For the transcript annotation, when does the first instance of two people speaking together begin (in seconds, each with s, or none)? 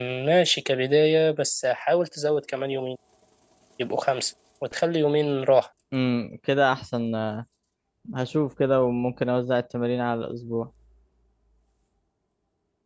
none